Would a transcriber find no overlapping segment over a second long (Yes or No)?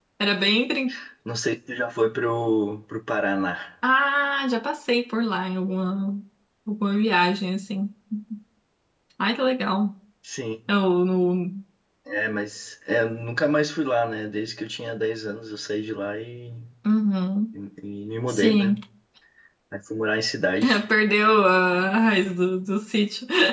Yes